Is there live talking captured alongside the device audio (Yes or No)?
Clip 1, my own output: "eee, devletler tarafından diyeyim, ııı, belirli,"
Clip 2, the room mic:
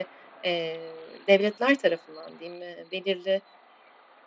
No